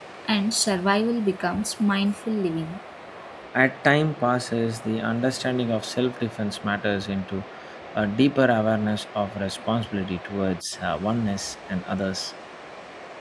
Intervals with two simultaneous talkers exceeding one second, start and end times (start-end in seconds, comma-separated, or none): none